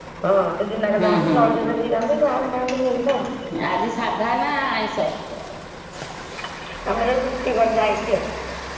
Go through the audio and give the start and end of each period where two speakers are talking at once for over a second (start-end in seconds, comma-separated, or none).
none